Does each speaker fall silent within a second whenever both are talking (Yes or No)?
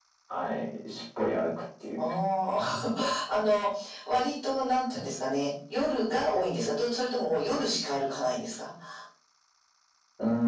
Yes